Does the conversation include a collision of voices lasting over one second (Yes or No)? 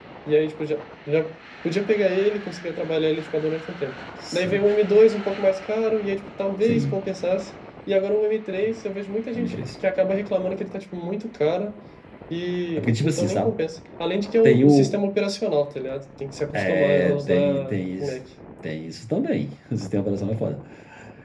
Yes